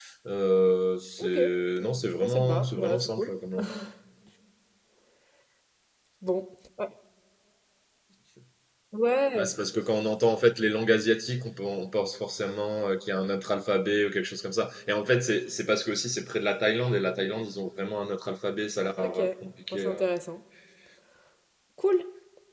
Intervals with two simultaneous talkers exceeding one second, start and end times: 1.8-3.3

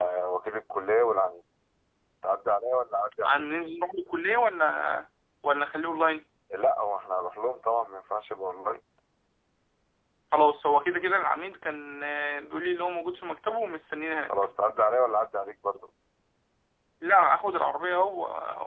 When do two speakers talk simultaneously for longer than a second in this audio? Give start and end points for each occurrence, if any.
none

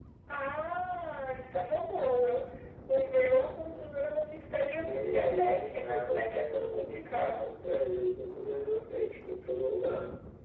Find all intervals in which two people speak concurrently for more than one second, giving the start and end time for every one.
4.8-7.5

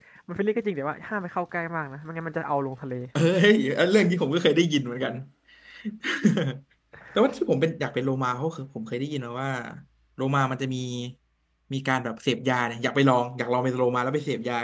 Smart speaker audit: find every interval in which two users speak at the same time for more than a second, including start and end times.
none

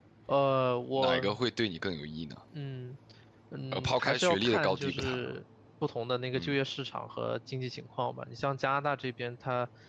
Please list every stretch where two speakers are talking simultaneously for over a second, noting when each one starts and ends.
3.7-5.3

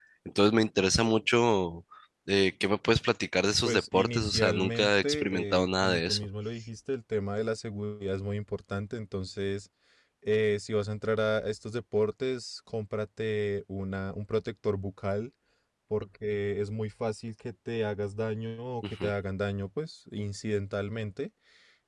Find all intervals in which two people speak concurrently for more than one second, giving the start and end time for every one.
3.6-6.3

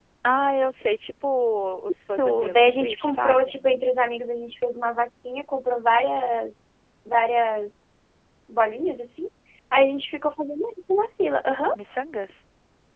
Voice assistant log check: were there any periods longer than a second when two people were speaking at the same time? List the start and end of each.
2.1-3.7

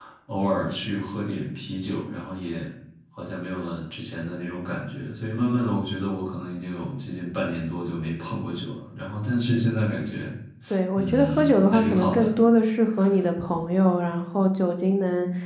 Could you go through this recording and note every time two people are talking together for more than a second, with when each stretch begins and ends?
11.0-12.3

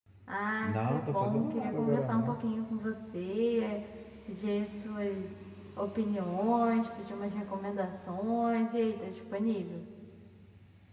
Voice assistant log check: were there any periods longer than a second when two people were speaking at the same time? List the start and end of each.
0.6-2.4

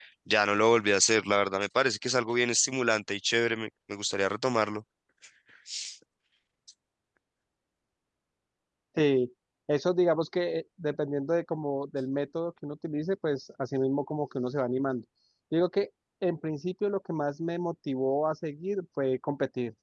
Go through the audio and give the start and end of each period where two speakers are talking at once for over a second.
none

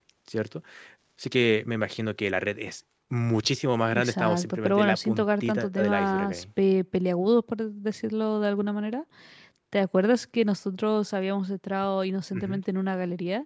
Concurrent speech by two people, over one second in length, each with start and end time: 3.9-6.4

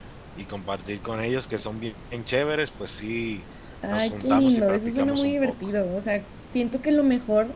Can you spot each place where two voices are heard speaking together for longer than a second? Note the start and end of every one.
3.9-5.5

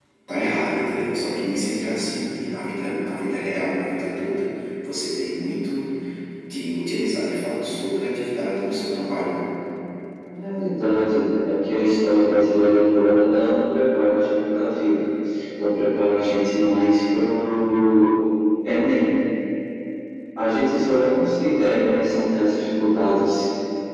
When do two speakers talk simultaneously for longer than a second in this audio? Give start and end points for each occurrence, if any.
none

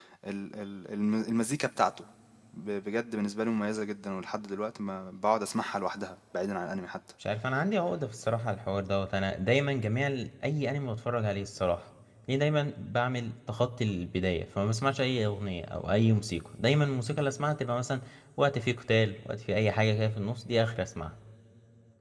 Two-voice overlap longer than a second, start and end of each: none

